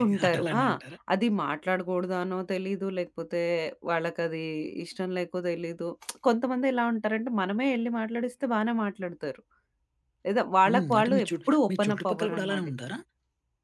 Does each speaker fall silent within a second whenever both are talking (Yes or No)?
No